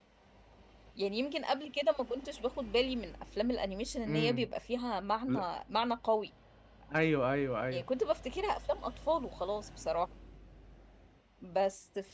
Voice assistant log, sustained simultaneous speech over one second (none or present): none